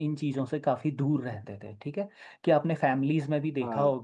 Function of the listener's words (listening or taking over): listening